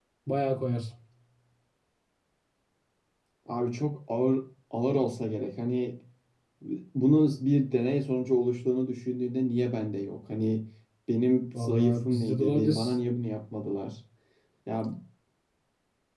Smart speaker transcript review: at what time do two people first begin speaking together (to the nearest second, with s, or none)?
12 s